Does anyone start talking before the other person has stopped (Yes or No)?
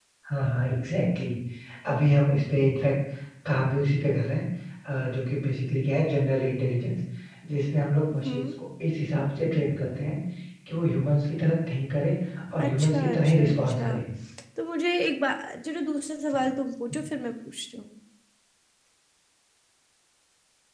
Yes